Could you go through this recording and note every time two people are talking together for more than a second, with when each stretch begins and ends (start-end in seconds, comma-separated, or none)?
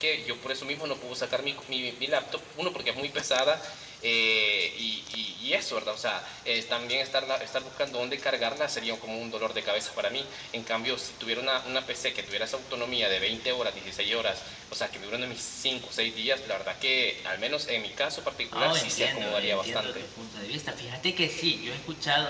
18.6-19.9